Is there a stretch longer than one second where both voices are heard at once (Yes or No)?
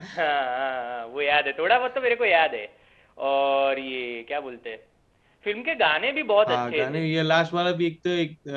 No